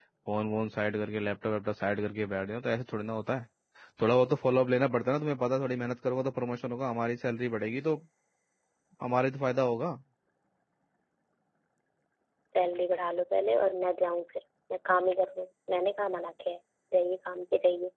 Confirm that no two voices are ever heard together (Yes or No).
Yes